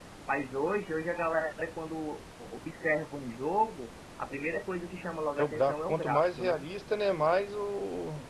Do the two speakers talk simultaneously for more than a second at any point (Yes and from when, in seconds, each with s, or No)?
Yes, from 5.4 s